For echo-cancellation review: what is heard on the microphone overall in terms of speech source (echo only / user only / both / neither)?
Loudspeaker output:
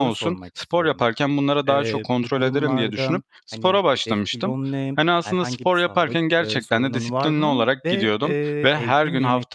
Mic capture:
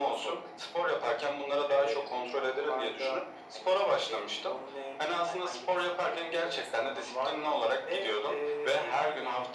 echo only